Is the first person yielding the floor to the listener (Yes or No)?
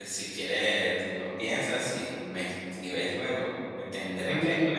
Yes